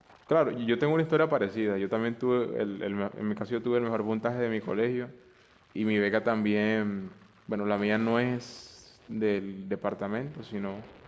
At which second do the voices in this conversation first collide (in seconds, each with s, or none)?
none